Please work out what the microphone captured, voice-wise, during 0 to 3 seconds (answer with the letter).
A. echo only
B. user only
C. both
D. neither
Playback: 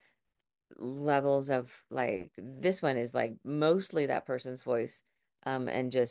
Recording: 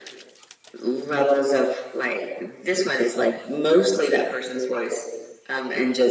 A